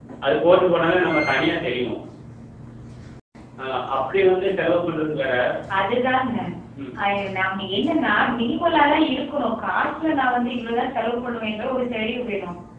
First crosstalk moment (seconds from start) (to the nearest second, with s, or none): none